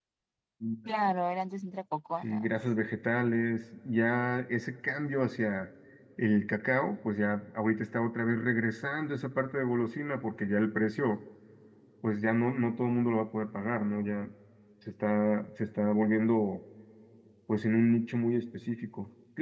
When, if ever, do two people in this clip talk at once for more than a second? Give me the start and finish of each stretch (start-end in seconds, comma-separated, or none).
none